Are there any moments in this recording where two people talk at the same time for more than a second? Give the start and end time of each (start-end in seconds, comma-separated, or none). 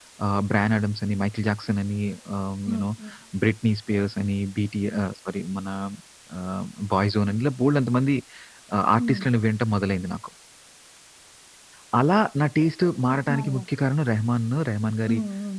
none